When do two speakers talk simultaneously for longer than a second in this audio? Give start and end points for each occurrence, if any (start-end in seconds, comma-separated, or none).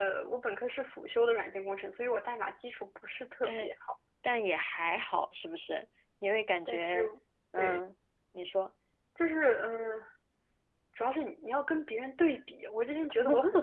none